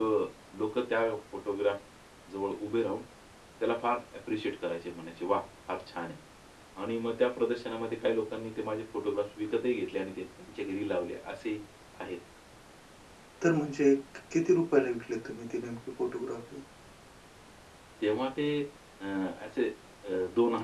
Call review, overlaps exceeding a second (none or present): none